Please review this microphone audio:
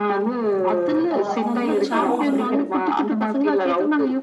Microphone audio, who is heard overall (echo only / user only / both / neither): both